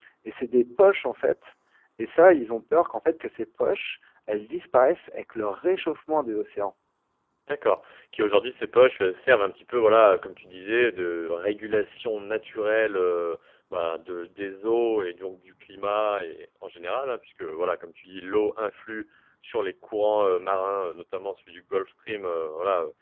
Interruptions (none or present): none